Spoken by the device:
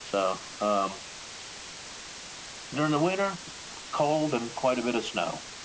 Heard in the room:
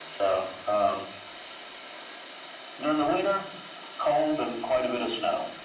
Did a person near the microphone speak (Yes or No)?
No